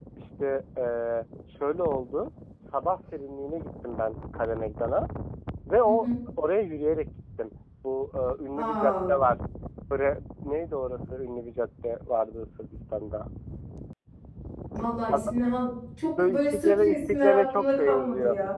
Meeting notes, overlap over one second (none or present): present